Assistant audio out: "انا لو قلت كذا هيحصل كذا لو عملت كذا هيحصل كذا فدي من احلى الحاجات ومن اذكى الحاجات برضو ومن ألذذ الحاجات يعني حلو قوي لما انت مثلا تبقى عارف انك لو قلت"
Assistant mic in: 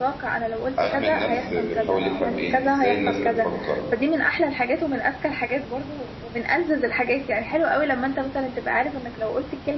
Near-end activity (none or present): present